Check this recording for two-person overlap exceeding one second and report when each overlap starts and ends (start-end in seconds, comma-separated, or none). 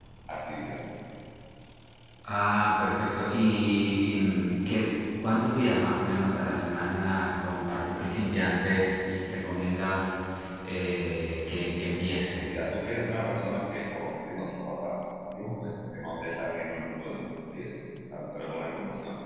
none